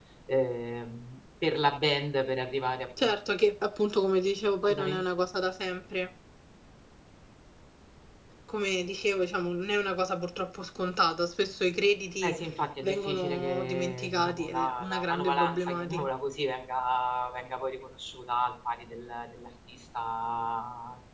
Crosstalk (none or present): present